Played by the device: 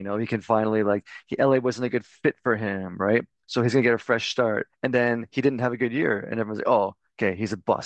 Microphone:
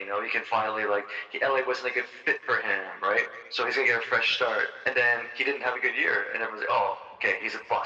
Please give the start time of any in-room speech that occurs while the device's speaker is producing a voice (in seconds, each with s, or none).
none